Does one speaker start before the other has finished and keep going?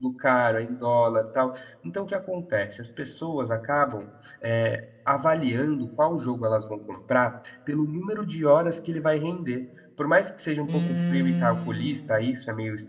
Yes, from 10.6 s

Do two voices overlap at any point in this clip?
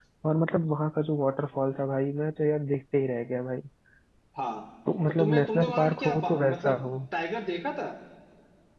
Yes, from 5.1 s

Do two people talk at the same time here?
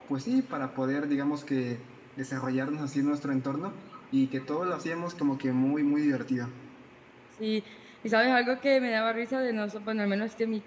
No

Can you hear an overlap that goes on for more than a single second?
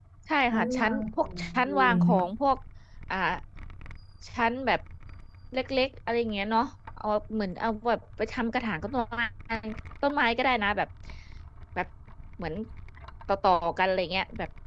Yes, from 0.5 s

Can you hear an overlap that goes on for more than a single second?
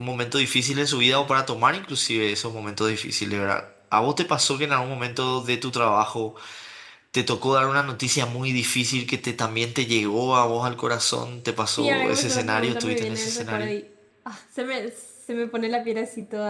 Yes, from 11.8 s

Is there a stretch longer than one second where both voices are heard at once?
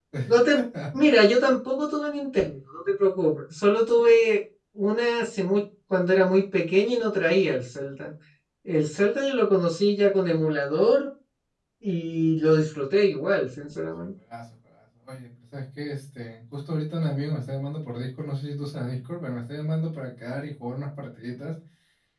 No

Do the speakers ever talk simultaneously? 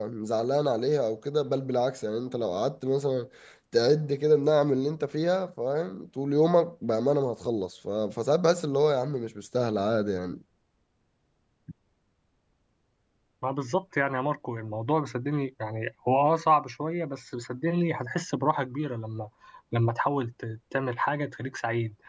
No

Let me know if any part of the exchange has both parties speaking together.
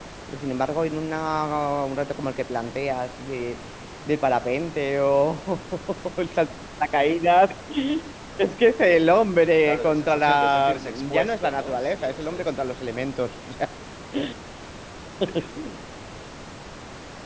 Yes, from 9.7 s

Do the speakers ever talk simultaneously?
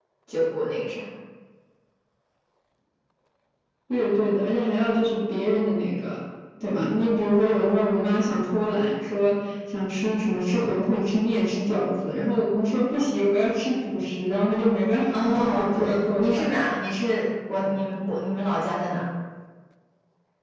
Yes, from 15.1 s

